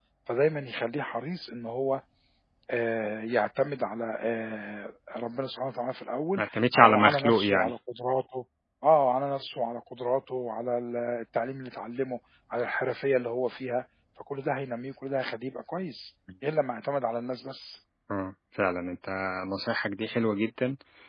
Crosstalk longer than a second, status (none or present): present